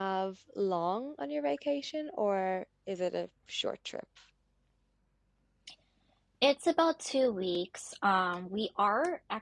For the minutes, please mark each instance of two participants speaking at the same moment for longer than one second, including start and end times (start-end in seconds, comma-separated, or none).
none